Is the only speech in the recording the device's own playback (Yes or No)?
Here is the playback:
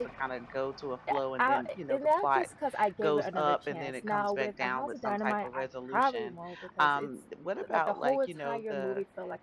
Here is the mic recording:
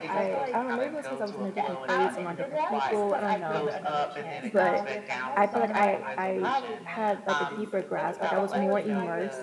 No